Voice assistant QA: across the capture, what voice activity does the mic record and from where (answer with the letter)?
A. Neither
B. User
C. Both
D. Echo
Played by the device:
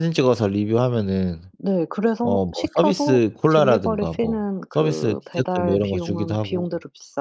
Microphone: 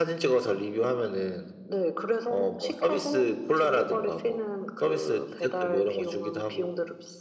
D